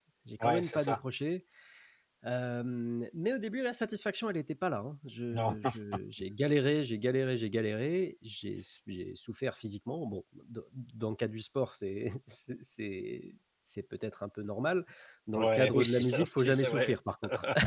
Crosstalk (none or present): present